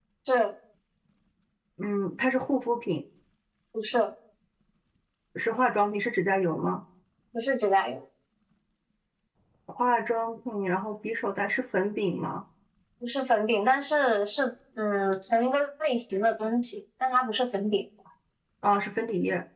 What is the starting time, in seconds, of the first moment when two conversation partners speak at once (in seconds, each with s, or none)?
none